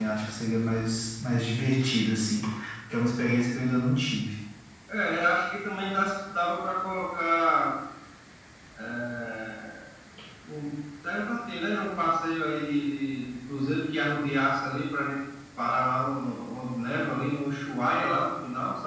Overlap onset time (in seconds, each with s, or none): none